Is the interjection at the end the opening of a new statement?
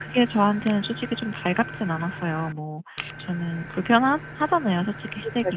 Yes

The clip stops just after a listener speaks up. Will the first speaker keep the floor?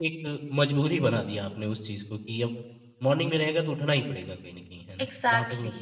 No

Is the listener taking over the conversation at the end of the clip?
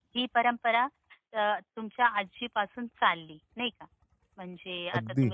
No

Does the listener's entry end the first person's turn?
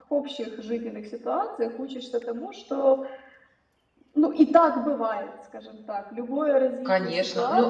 Yes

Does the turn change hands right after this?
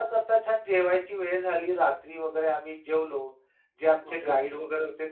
No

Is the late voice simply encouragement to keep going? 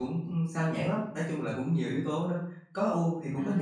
No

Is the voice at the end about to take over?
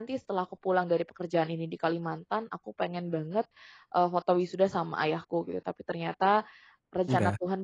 No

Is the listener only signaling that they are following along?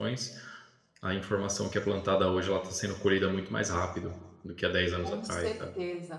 No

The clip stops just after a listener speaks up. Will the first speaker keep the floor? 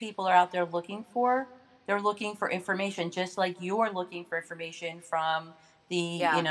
Yes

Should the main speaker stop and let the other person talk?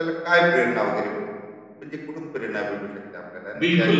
Yes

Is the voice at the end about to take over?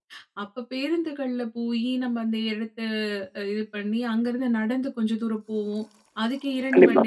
No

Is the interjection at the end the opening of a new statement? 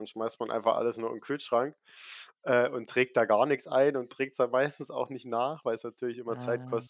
No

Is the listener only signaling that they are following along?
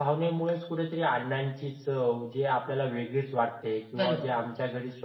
Yes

